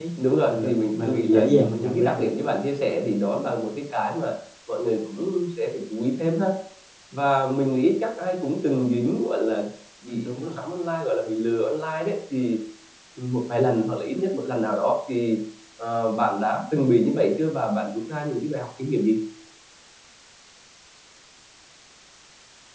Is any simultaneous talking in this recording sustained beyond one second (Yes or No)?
Yes